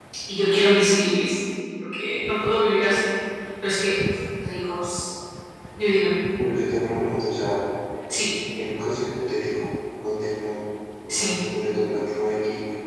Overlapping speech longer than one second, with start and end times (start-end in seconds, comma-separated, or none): none